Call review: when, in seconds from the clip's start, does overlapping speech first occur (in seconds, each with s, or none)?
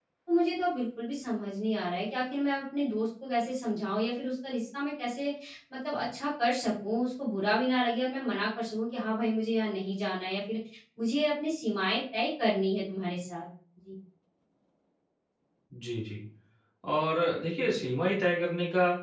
none